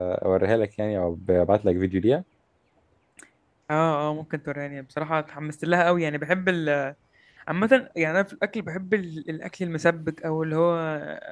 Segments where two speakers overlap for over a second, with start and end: none

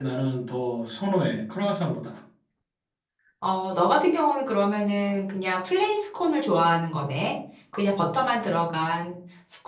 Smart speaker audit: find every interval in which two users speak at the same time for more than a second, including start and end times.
none

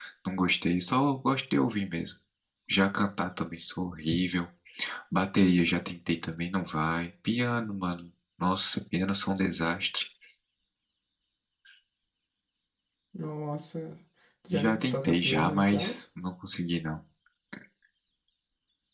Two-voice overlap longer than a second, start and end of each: 14.5-15.9

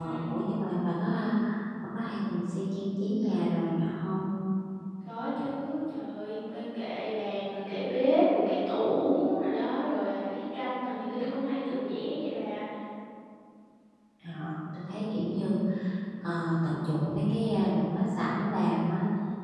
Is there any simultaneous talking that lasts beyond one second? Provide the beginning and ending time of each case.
none

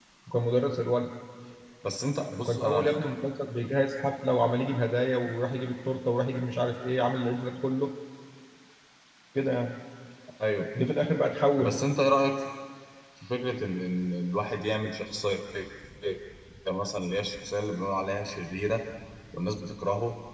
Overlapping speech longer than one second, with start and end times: none

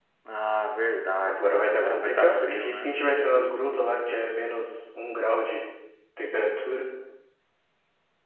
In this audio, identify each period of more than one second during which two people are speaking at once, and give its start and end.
1.3-3.0

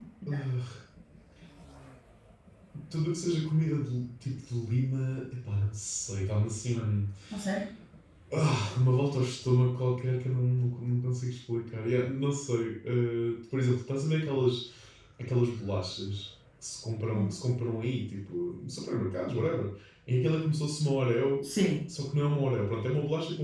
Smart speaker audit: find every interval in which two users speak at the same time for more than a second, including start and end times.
none

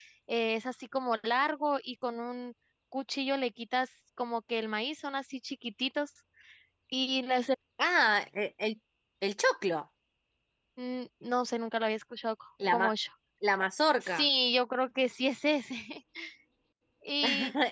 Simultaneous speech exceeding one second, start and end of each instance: none

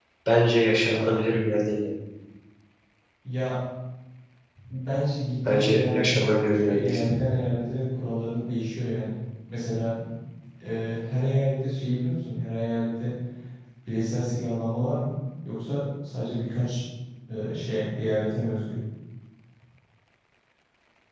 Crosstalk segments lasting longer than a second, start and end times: 5.5-7.0

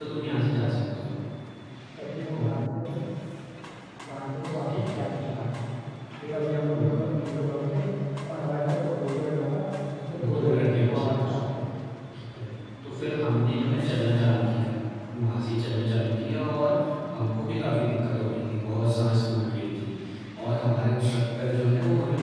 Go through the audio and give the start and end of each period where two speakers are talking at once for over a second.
10.2-11.5

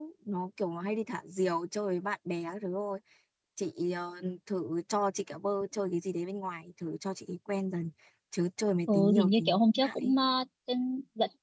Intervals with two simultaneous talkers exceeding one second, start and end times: 8.9-10.1

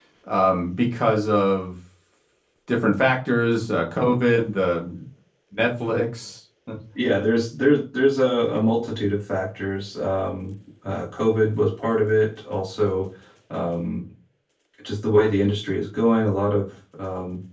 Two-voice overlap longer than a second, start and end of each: none

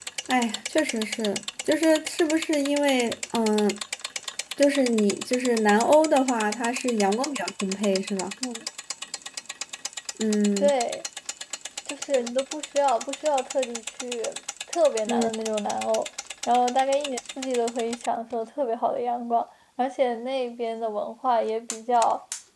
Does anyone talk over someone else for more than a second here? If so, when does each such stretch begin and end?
none

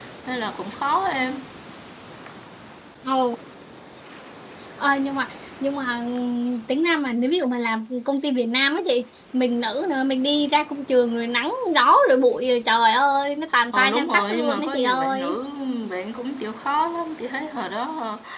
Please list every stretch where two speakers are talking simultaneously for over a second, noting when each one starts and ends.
13.7-15.4

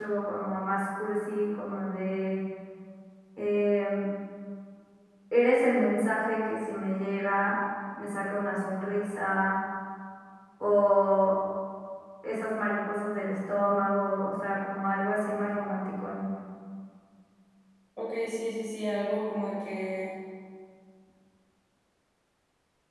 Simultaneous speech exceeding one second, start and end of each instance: none

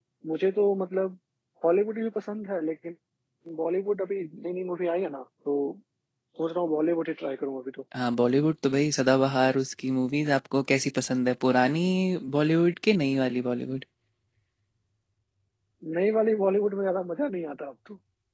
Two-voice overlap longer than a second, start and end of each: none

